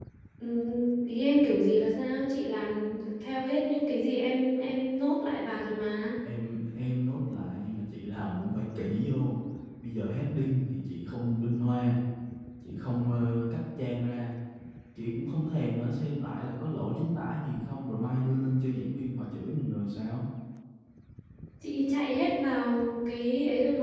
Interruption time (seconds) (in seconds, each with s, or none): none